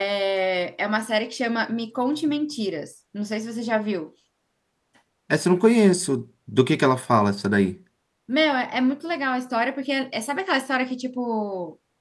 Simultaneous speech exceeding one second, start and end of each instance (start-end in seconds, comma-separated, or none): none